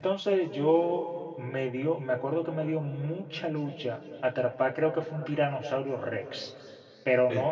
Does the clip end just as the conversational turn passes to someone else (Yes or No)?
No